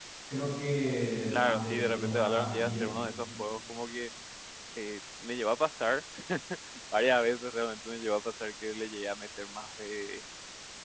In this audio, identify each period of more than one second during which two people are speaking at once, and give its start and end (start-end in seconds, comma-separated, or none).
1.3-2.9